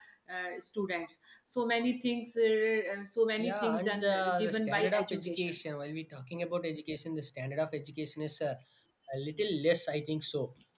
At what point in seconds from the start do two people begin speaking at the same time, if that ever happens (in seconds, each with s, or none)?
3.4 s